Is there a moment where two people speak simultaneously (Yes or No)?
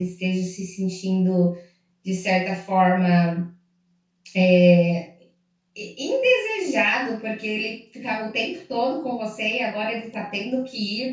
No